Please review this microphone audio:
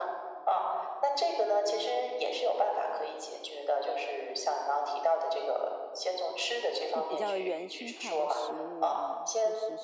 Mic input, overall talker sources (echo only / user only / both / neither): both